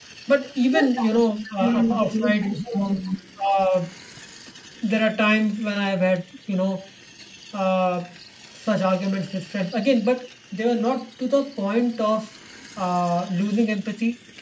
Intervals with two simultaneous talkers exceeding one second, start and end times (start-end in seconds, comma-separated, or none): 1.6-3.0